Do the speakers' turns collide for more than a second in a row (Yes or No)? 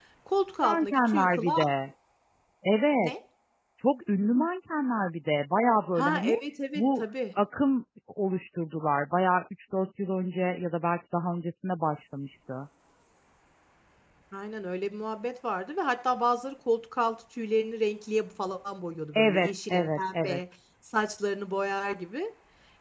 Yes